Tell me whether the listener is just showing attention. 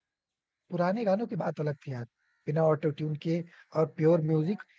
Yes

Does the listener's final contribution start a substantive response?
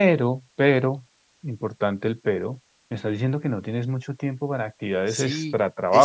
Yes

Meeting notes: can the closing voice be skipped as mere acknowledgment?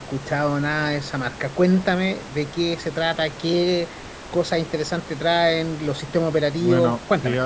No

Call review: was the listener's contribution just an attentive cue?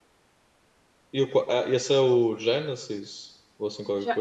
No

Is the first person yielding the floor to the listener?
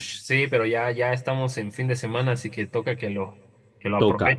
Yes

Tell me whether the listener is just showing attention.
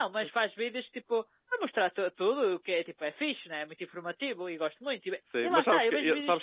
No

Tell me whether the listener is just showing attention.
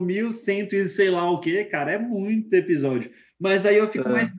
Yes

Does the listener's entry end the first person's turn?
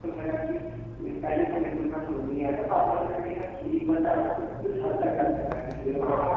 Yes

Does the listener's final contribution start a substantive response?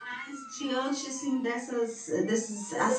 No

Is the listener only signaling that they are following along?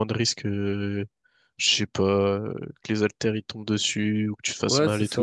No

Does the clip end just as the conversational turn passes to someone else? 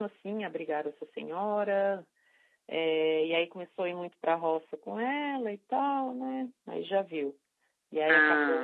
No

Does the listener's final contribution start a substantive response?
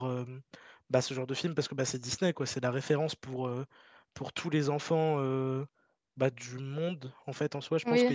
Yes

